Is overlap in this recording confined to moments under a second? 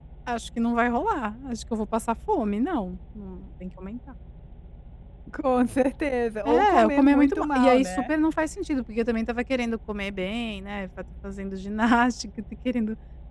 No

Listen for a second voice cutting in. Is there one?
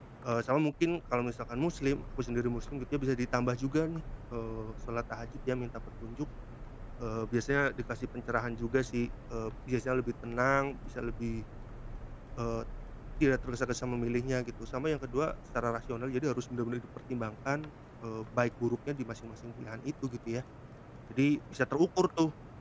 No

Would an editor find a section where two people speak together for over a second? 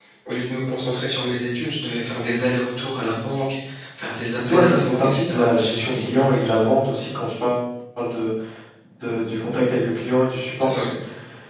Yes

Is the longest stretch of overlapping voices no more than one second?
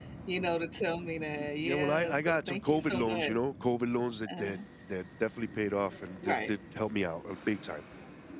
No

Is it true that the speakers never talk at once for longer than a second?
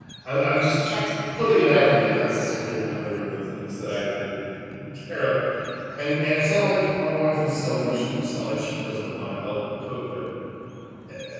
No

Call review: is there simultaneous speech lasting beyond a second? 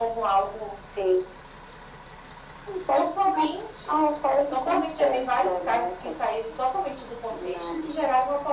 Yes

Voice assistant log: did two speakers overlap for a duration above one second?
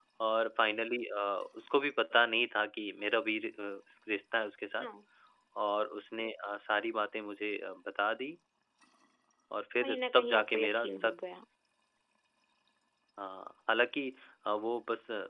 Yes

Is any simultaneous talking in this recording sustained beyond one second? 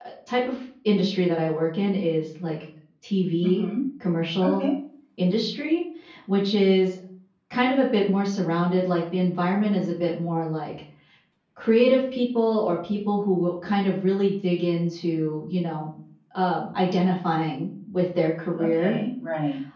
No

